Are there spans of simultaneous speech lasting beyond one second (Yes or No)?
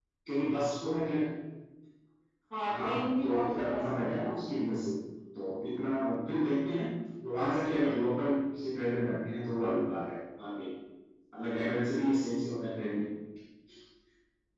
Yes